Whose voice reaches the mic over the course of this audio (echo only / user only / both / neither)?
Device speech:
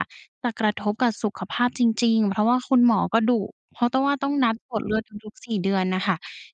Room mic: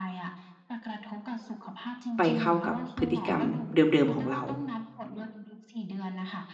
both